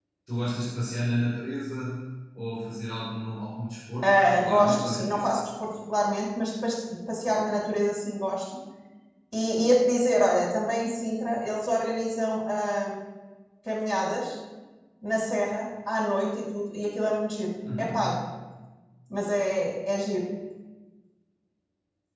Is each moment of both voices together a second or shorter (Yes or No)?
No